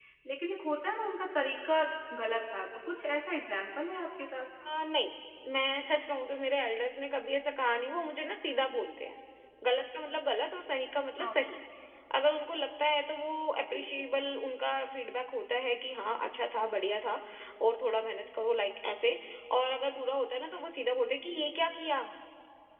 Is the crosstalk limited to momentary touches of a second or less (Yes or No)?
Yes